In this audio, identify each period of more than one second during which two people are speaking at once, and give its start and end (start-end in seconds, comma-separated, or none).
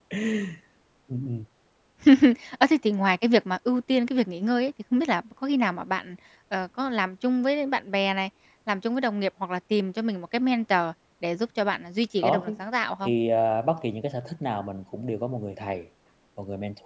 none